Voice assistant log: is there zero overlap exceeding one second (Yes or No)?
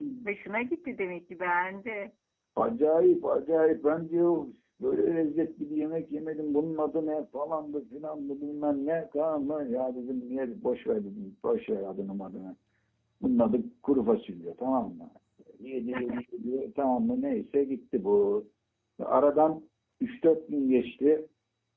Yes